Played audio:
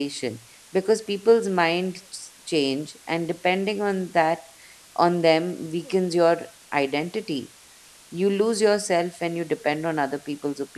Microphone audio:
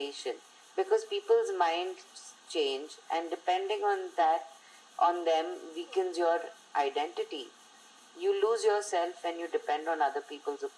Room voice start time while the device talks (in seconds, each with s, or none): none